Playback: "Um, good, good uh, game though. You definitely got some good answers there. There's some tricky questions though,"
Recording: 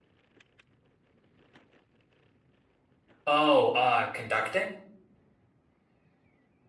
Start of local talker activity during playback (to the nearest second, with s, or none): 3 s